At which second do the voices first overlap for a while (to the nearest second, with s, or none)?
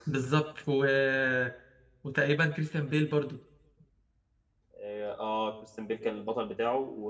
none